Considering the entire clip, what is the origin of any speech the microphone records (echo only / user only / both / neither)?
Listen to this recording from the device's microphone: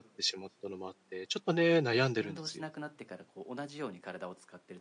both